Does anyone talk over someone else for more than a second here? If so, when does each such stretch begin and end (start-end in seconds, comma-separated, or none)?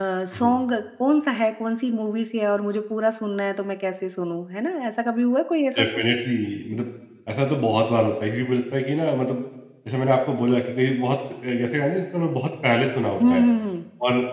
none